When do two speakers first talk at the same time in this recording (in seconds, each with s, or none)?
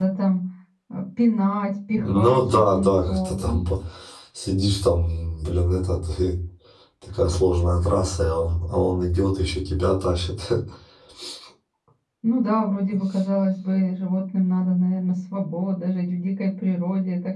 2.0 s